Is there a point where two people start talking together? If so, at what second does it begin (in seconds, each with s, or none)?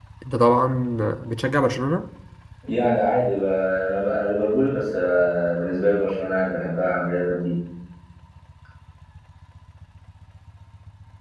none